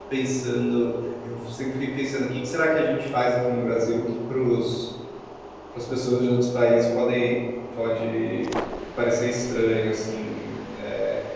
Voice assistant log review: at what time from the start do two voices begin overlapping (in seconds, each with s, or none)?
none